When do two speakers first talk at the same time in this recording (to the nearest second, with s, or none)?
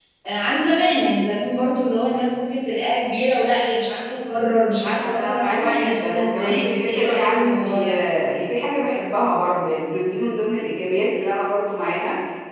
5 s